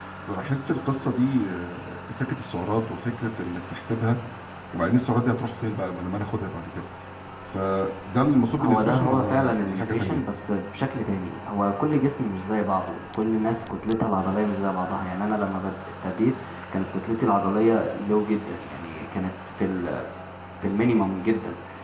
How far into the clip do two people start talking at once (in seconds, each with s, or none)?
8.6 s